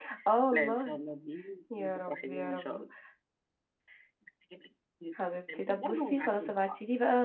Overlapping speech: Yes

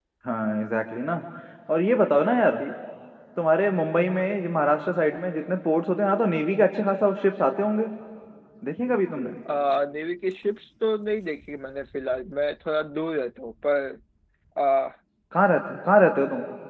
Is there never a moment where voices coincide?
Yes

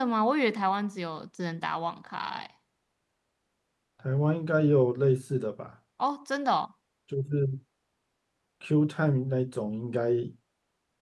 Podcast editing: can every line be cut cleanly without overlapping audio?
Yes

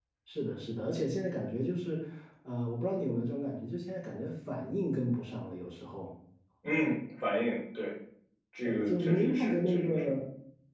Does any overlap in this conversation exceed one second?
Yes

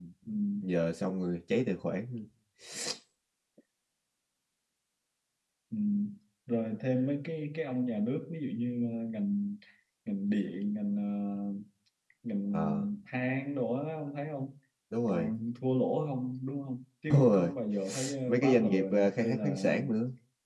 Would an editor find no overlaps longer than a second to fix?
No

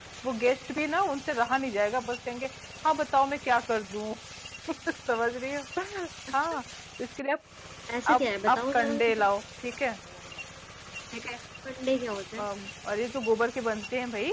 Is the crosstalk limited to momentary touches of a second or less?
No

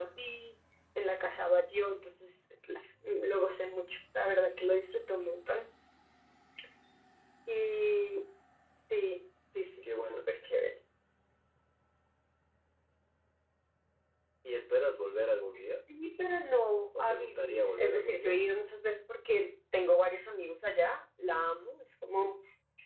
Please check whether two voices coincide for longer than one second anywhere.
Yes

